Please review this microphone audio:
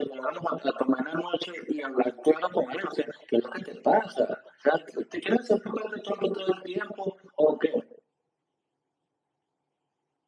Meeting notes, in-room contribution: none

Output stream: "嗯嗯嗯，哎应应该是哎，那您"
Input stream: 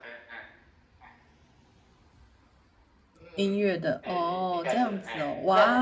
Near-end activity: present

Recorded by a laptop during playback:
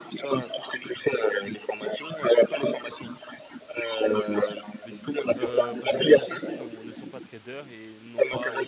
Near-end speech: present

